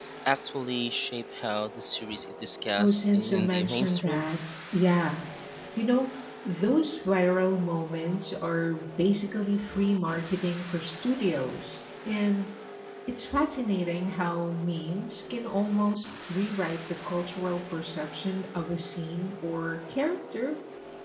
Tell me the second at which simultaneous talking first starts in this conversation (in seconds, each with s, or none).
2.8 s